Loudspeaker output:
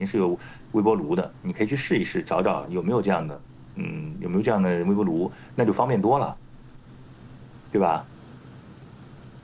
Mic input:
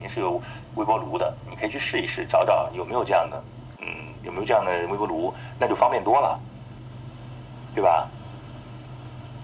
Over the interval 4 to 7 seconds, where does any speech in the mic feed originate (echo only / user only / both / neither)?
echo only